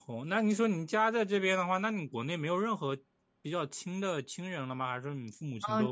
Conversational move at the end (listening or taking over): taking over